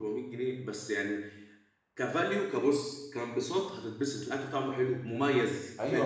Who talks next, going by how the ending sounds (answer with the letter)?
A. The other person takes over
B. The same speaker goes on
A